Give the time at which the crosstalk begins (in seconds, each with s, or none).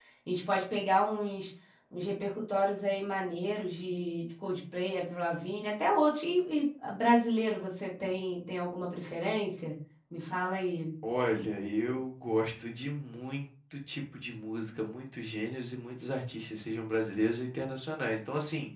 none